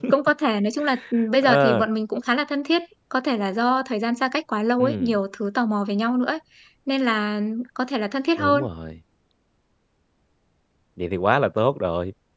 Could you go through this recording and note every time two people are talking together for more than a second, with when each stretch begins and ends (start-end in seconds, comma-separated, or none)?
none